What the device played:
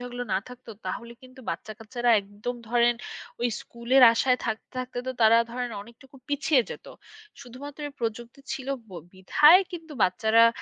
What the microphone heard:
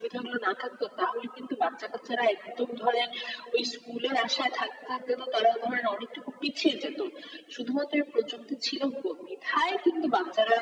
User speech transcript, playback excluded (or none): none